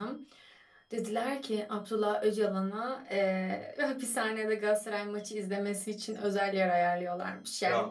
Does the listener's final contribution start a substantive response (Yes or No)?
No